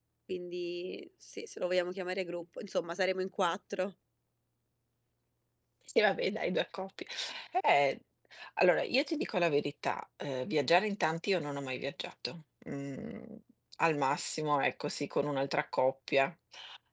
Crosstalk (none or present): none